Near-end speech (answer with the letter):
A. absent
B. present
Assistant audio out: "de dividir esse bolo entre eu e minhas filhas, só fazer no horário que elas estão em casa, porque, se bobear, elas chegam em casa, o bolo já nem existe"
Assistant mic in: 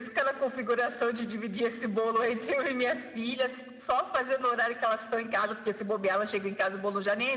A